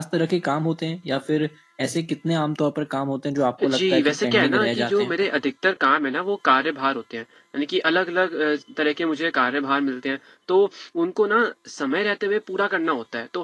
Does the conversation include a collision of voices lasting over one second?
Yes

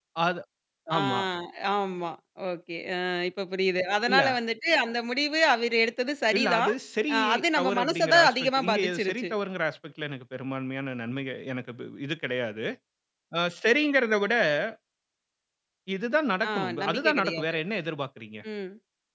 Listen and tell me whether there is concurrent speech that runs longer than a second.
Yes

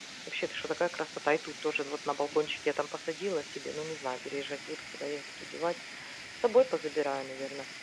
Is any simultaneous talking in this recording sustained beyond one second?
No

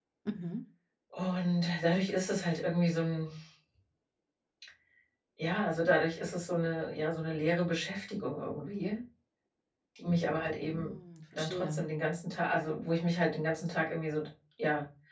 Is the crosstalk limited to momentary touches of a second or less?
Yes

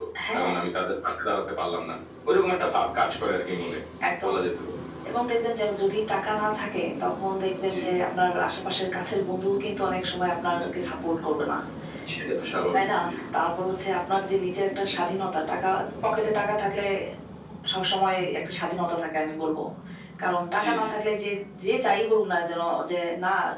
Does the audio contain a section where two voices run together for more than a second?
No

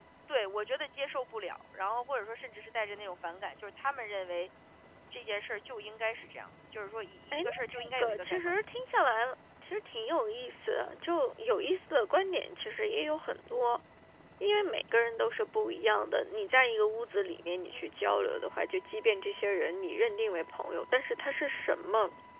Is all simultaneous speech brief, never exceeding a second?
No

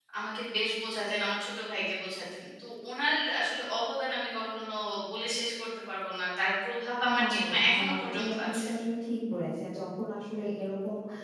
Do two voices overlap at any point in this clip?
Yes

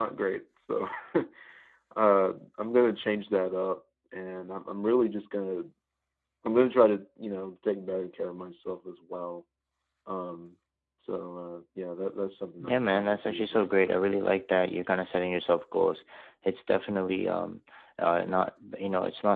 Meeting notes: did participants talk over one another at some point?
Yes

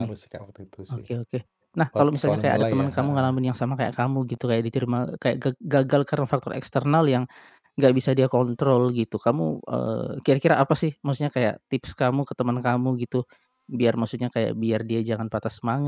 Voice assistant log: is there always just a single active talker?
No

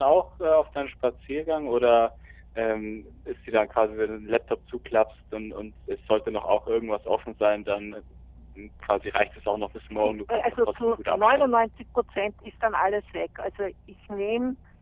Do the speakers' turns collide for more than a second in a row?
Yes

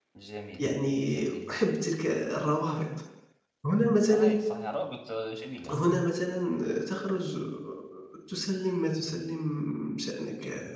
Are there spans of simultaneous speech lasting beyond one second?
No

